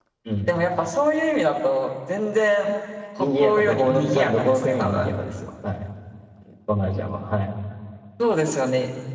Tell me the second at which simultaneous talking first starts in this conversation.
3.2 s

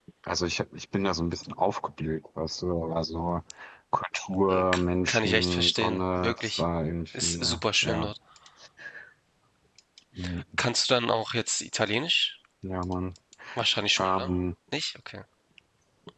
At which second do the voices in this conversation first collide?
4.5 s

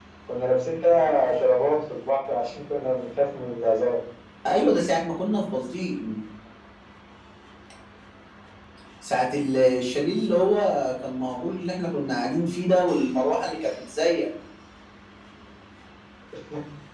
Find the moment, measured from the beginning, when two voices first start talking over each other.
none

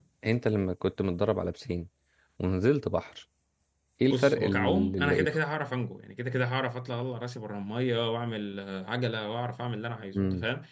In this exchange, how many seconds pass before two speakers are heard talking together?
4.1 s

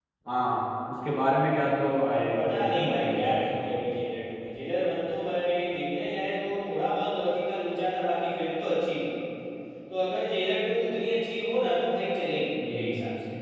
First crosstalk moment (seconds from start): 2.3 s

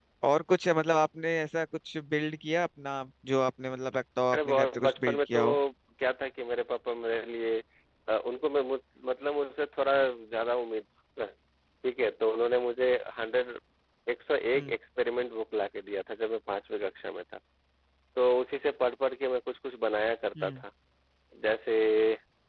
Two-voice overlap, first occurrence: 4.3 s

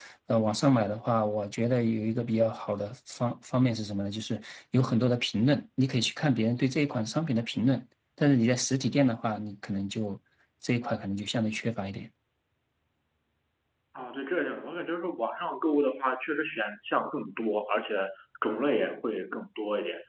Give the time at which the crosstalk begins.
none

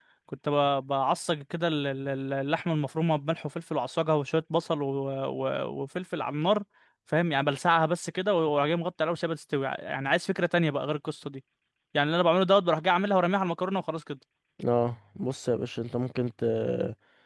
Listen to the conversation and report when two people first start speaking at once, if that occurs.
none

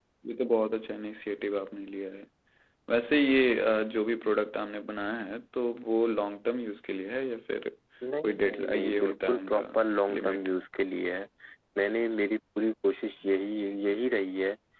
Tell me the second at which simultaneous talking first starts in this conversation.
8.2 s

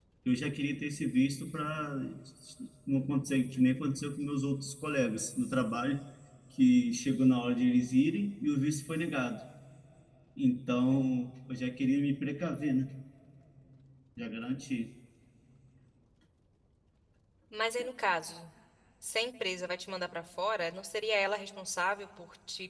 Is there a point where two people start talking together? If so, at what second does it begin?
none

